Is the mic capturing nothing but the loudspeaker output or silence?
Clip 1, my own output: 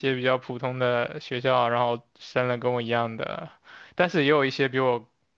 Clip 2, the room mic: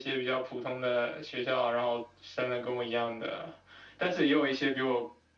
Yes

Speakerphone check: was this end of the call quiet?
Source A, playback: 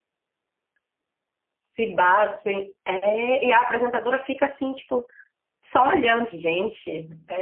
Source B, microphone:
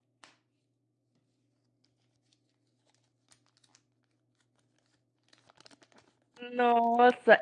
No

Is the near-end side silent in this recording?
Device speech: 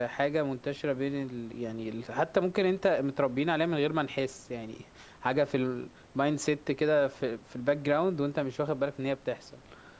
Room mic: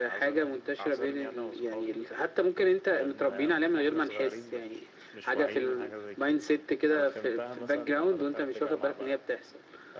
No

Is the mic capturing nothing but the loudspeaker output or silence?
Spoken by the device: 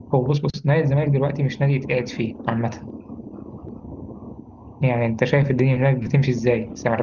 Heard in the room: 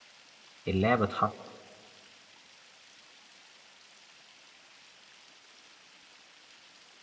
No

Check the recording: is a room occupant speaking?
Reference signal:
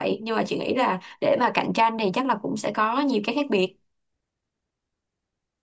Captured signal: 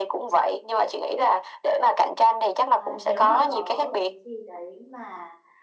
Yes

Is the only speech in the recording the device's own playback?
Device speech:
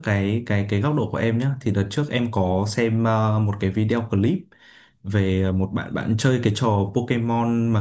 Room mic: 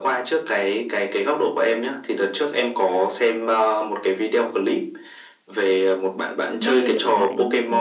No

